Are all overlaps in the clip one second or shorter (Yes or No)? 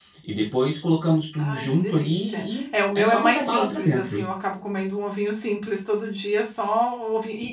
No